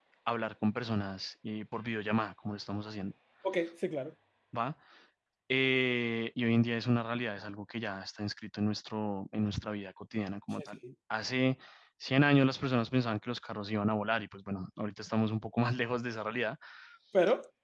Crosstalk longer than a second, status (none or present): none